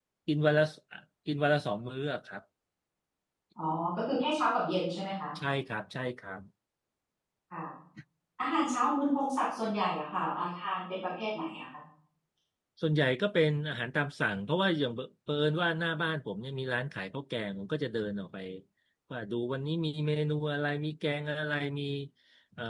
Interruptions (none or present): none